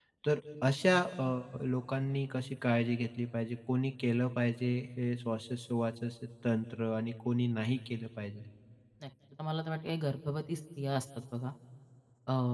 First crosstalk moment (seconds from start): none

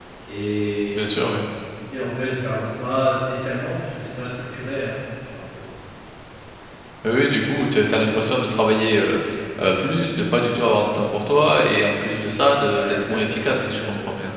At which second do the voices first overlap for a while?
12.7 s

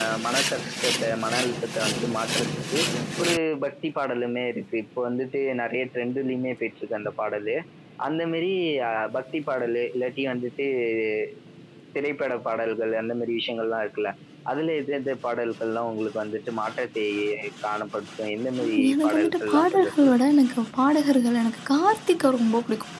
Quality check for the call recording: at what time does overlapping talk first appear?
18.6 s

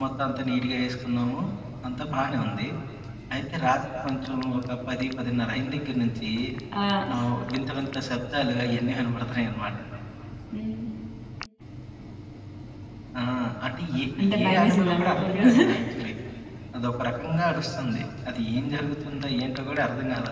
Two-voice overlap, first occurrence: 14.4 s

